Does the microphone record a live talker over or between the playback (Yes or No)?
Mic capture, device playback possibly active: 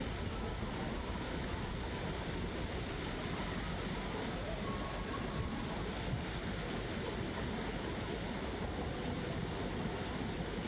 No